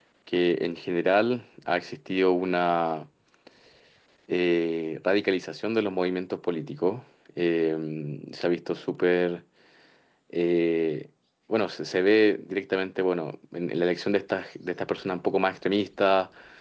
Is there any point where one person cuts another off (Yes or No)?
No